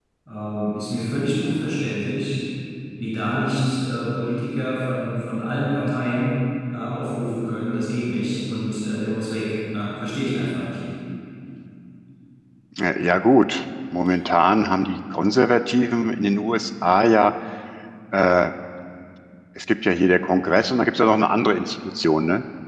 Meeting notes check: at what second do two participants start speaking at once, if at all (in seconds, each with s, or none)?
none